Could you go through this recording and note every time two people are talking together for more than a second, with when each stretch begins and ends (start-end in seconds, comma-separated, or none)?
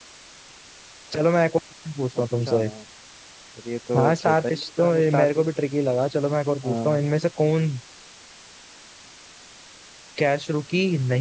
3.9-5.4